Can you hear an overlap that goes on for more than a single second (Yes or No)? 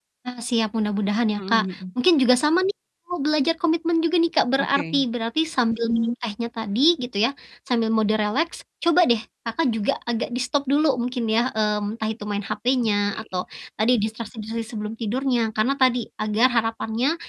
No